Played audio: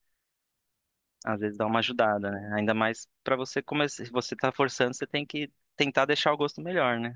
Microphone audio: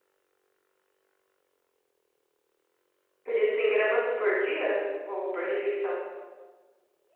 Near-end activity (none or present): present